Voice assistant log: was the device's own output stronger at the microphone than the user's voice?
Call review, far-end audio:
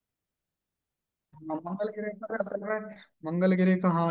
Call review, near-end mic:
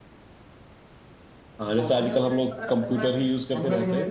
No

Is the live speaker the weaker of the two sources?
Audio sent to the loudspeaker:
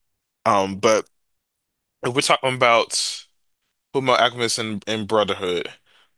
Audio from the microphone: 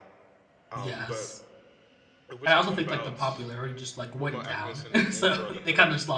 No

